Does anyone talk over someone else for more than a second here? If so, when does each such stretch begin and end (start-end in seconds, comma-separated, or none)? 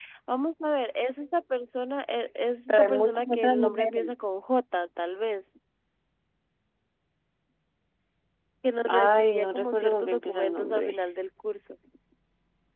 2.7-4.0, 8.9-10.9